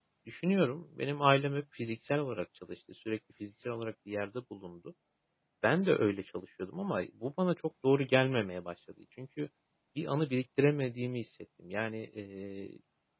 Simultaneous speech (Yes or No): No